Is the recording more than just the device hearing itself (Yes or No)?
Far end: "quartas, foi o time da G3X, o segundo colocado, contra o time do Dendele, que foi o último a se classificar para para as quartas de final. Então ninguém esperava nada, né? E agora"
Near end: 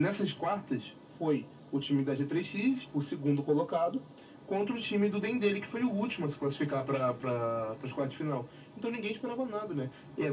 No